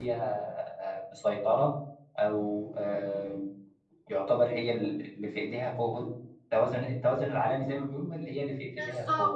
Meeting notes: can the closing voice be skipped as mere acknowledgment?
No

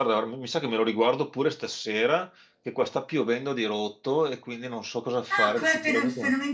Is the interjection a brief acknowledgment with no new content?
No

